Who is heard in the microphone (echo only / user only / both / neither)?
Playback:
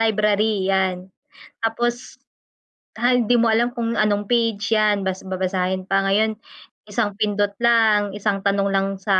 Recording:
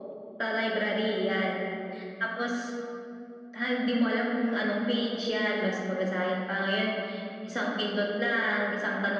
echo only